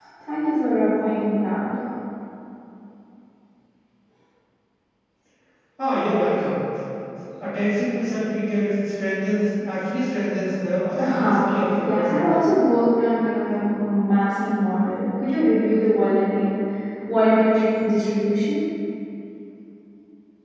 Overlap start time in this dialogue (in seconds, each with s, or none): 11.0 s